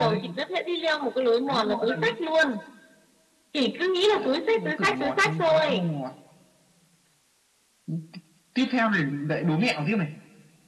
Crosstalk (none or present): present